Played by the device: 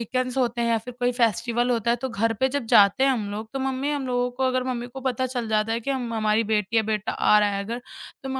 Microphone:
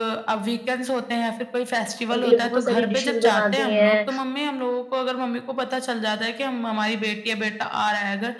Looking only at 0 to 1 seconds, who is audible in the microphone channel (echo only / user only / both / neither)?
echo only